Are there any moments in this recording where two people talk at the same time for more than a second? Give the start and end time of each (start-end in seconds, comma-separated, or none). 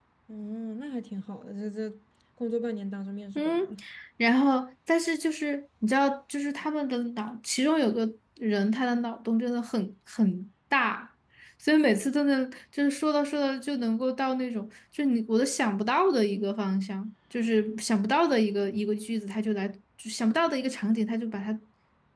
none